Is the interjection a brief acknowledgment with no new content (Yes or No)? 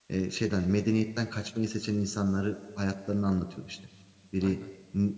Yes